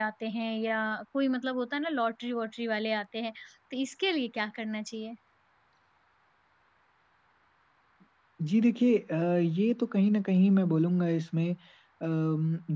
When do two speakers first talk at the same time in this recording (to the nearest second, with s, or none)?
none